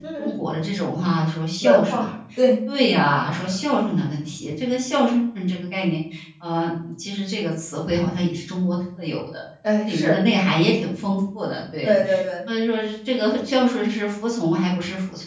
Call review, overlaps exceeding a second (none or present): none